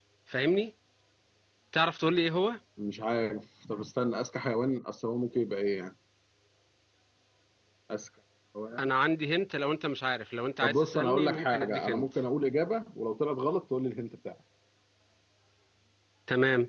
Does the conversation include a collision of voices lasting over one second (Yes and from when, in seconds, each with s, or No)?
Yes, from 10.6 s